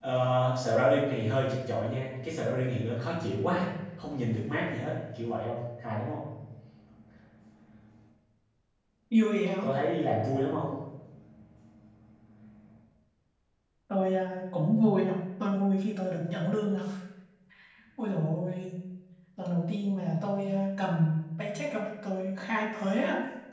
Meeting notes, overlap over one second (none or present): none